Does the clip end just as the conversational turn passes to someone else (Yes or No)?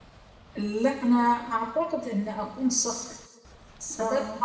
No